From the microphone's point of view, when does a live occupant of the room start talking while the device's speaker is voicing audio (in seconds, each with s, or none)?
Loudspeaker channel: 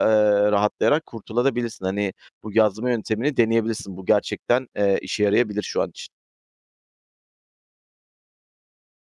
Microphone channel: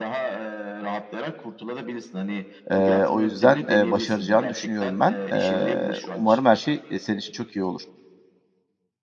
2.7 s